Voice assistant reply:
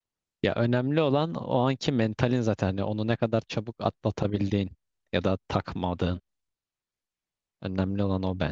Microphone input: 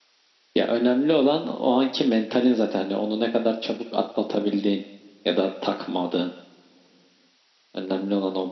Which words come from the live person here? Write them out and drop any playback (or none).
none